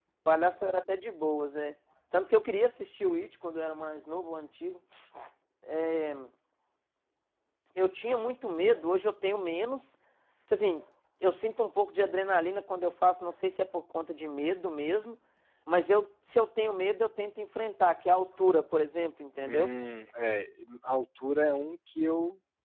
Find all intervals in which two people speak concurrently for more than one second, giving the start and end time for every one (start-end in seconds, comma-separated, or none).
none